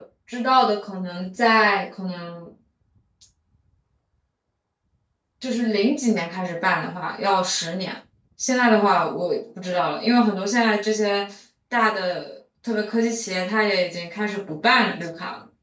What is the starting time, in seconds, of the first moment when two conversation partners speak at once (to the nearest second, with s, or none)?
none